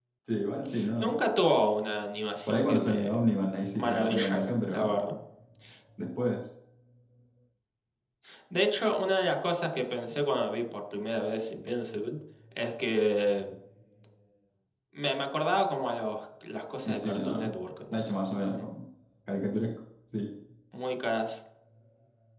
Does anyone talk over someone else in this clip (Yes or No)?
Yes